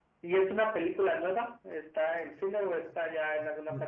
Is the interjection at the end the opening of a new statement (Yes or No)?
Yes